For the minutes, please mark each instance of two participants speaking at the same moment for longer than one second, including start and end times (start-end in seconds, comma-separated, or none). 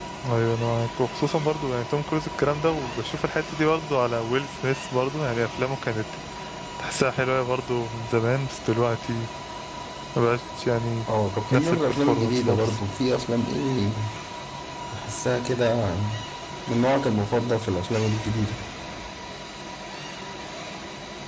11.5-12.8